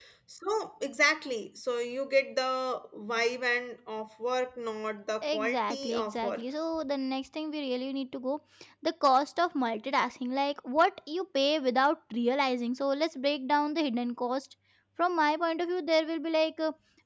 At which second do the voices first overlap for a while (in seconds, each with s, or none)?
5.2 s